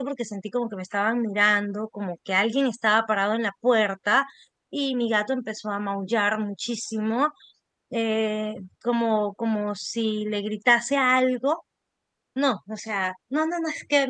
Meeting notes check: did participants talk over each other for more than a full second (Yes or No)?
No